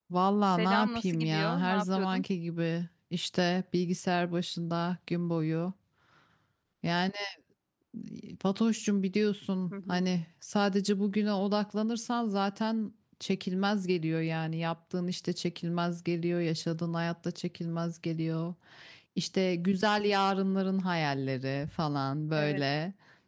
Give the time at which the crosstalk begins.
1 s

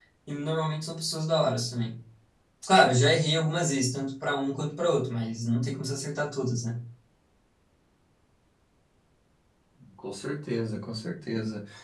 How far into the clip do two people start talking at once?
none

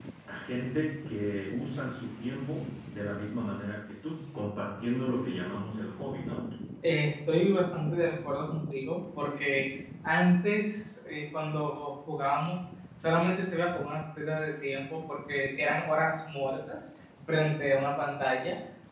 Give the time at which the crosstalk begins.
none

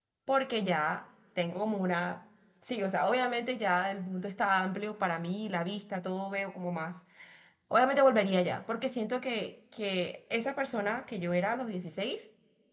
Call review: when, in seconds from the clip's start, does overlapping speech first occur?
none

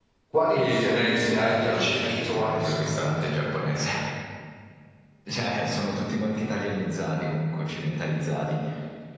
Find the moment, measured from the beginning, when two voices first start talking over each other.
1 s

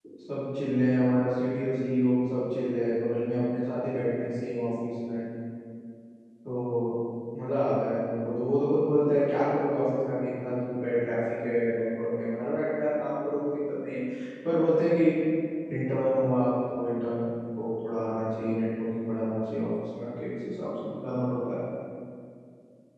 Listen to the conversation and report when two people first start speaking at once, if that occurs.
none

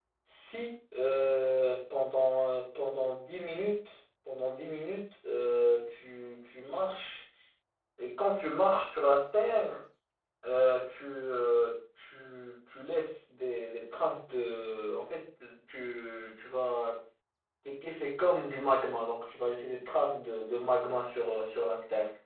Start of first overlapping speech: none

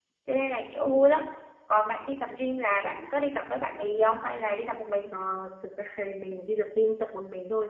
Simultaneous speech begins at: none

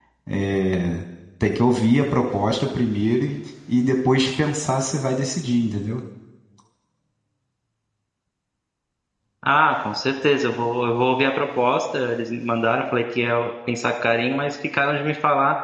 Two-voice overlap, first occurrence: none

